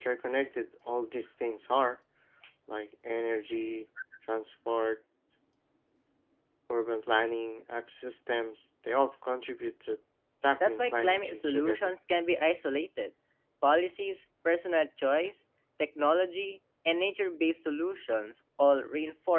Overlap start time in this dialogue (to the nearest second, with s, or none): 11 s